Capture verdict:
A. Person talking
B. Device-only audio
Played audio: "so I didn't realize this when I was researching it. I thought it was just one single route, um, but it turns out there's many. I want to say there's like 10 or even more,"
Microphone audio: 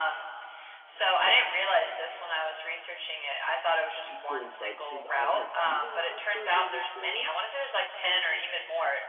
A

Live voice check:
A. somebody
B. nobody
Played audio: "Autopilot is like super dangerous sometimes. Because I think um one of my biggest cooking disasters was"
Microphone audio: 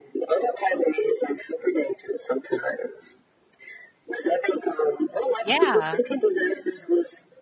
A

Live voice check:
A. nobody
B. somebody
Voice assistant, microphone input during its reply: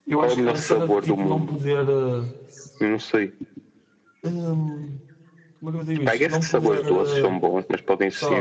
B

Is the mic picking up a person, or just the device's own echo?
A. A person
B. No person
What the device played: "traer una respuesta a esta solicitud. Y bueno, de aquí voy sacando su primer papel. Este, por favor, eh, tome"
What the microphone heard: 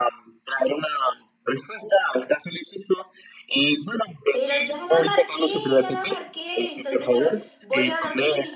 A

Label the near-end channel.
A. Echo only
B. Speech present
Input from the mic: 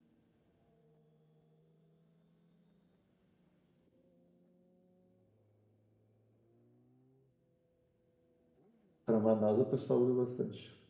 B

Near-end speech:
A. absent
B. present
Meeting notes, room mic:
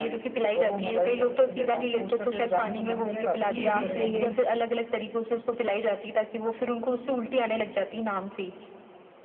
B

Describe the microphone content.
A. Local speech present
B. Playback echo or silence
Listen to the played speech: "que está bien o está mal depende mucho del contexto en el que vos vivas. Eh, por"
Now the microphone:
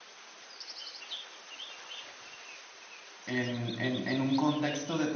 A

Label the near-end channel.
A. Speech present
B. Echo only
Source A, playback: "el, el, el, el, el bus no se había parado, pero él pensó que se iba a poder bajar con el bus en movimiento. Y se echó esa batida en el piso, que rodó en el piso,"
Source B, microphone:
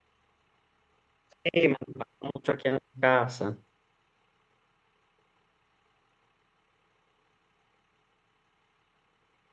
A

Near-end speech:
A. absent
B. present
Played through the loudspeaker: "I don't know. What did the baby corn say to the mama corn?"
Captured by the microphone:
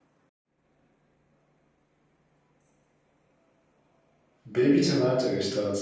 B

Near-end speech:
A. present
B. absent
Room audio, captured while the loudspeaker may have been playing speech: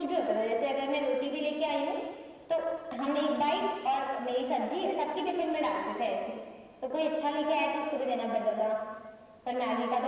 B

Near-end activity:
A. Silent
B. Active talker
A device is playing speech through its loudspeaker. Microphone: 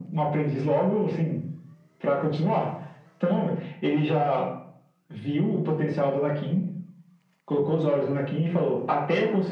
A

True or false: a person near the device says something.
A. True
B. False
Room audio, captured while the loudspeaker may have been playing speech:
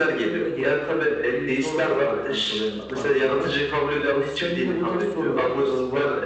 B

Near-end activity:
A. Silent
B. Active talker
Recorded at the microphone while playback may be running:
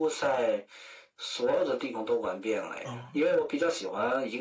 B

